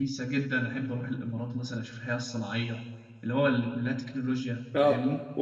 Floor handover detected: Yes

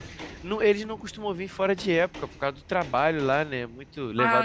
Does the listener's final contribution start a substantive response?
No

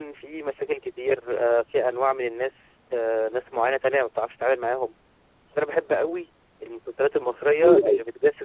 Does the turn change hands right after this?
No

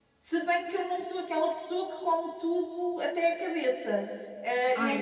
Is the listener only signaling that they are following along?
Yes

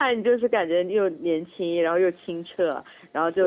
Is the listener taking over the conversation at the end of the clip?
No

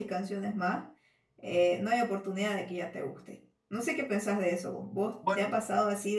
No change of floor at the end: Yes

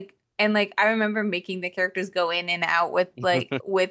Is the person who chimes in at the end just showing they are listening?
Yes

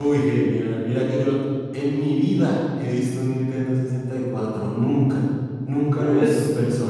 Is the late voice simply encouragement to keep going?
No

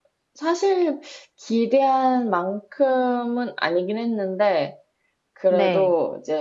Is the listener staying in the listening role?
Yes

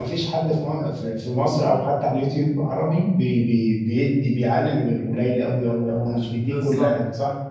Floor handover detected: Yes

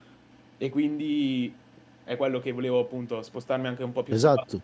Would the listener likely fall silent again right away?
Yes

